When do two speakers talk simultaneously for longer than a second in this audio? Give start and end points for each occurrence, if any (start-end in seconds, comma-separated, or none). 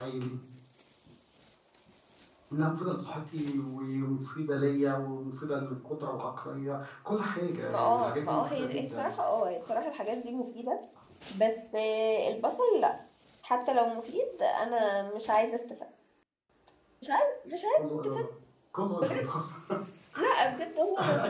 7.7-9.1